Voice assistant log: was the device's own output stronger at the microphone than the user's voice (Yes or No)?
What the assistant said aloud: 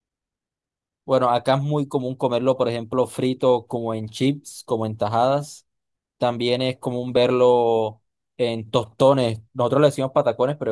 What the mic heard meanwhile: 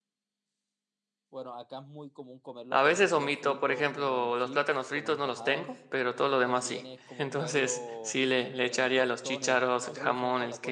No